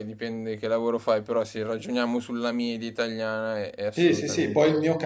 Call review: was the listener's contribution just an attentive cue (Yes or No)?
No